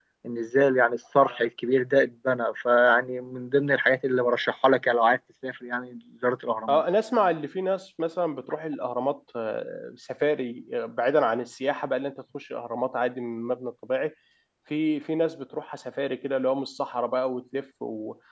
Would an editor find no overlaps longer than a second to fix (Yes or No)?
Yes